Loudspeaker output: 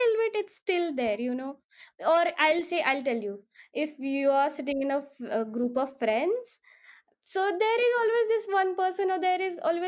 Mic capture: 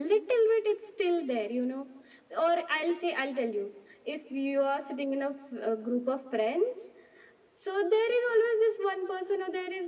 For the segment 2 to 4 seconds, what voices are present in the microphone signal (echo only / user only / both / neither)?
echo only